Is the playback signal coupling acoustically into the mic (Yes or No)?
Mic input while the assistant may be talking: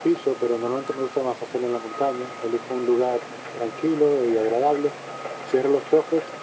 Yes